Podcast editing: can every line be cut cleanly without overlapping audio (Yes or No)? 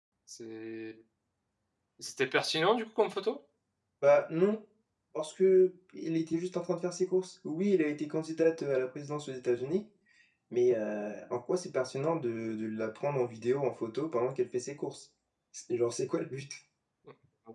Yes